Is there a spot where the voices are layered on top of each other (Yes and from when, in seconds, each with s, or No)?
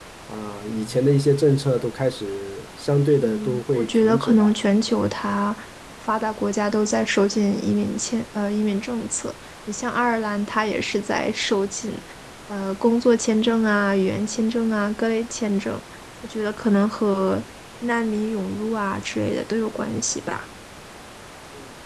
Yes, from 3.2 s